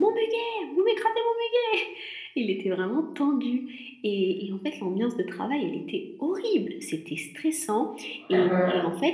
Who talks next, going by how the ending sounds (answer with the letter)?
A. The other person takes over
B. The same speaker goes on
B